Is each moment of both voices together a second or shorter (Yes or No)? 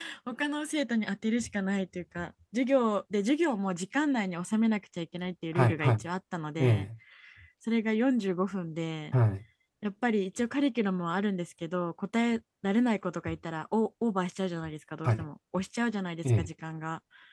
Yes